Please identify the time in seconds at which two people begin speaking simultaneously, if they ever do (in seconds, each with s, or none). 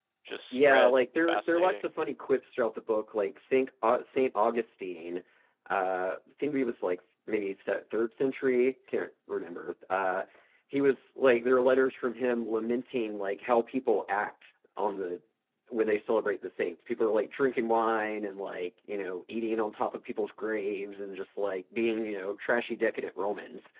0.5 s